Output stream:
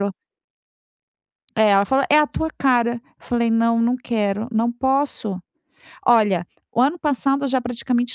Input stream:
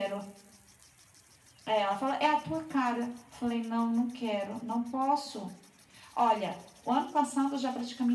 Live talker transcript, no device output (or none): none